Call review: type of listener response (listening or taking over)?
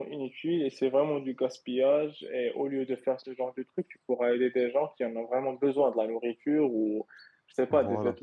listening